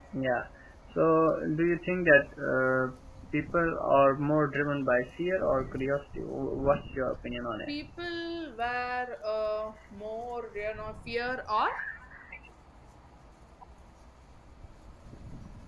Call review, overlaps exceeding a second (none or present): none